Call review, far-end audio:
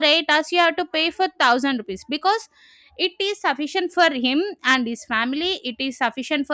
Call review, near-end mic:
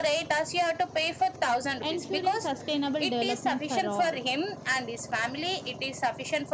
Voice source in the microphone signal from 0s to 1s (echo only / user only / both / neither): echo only